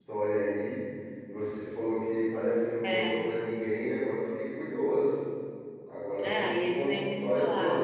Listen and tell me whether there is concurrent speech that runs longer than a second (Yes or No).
Yes